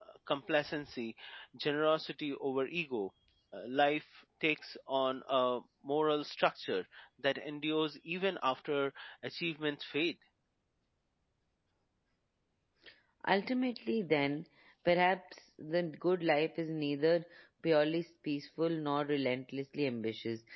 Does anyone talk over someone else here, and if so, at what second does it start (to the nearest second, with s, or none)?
none